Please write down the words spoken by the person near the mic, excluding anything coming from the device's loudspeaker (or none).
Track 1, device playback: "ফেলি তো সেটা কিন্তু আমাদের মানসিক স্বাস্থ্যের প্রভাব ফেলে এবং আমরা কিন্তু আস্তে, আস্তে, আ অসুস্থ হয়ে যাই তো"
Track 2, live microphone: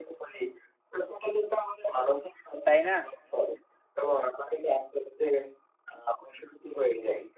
তাই না?